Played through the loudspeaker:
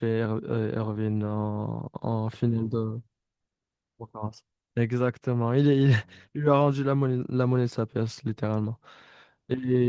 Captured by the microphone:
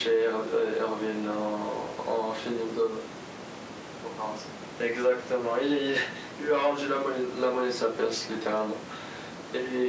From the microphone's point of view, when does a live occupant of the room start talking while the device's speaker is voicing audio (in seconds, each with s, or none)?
none